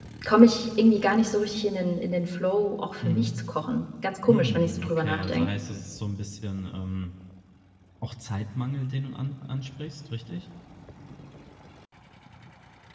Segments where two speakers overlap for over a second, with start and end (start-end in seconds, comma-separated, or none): 4.3-5.5